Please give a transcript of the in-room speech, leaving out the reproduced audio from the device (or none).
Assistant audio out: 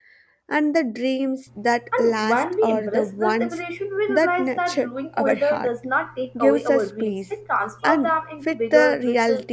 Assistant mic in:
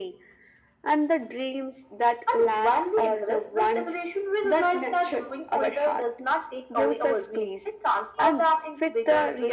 none